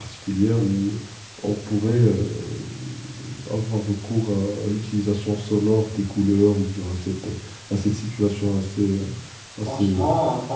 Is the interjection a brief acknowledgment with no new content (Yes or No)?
No